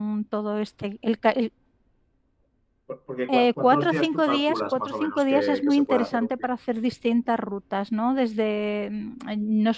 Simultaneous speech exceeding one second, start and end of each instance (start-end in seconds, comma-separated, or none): 3.3-6.5